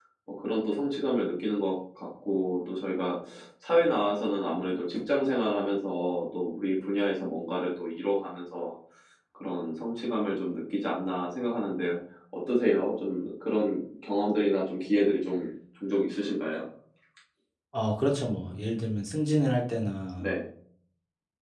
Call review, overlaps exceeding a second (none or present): none